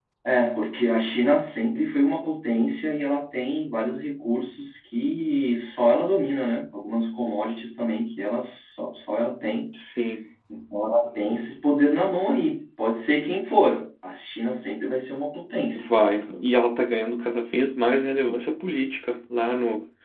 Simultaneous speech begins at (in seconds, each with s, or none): none